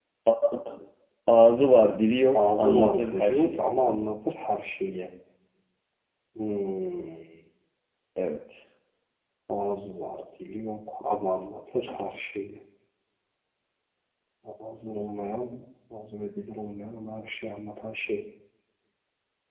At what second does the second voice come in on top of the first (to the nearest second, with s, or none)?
2 s